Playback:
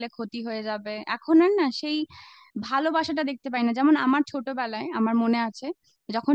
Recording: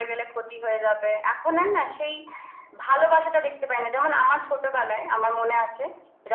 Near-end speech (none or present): none